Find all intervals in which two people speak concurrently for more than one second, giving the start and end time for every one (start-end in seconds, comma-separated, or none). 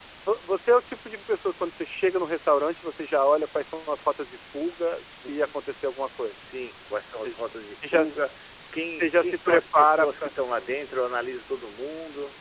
9.0-10.3